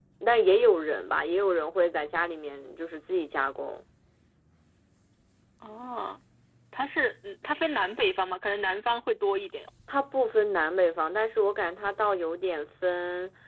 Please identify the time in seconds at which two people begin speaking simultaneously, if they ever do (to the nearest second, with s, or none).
none